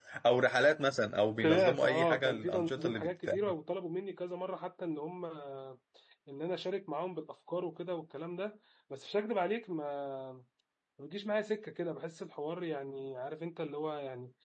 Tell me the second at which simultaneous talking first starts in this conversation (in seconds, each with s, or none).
1.4 s